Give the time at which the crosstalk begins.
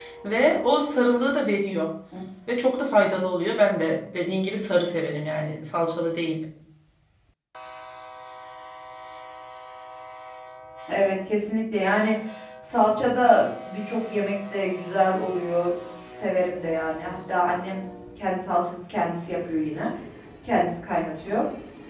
none

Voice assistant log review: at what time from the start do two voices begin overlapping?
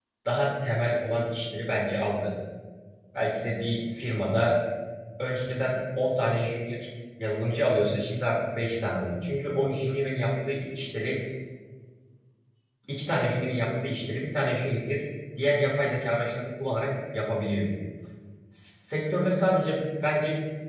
none

